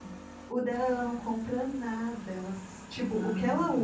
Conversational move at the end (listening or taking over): listening